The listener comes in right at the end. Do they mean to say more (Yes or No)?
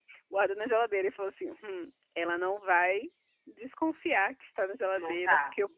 No